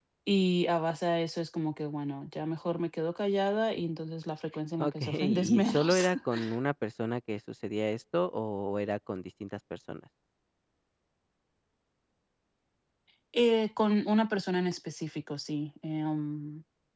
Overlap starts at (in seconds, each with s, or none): 4.8 s